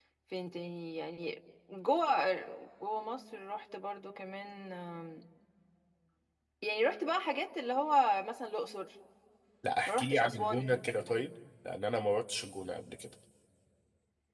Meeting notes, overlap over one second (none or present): present